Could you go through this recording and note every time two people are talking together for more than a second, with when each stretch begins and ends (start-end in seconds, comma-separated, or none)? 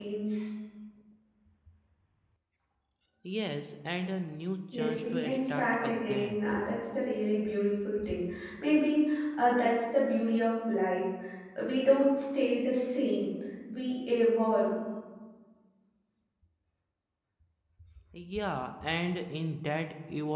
4.7-6.4